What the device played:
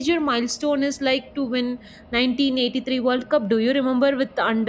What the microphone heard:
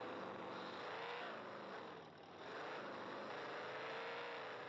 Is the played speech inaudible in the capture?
Yes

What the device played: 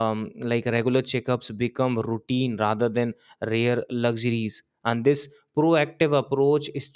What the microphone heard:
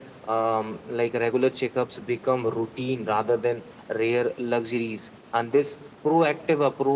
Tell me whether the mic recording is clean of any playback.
No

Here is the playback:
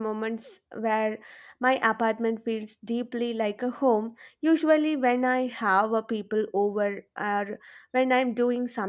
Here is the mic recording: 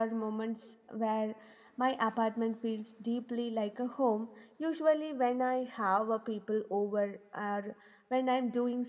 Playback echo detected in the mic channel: Yes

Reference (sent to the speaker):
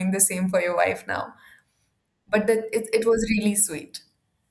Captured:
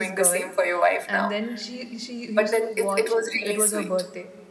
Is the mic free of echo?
No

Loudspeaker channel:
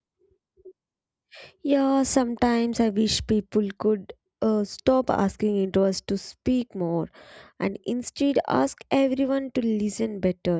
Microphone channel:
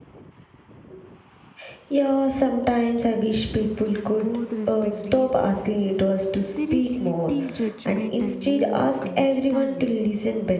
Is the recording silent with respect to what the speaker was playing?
No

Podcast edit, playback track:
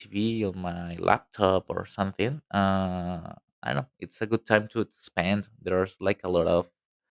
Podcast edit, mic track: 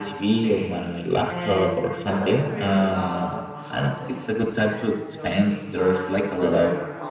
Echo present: Yes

